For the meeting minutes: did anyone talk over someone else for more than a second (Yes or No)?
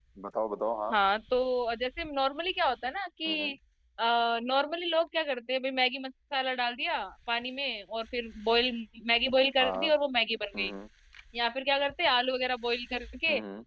No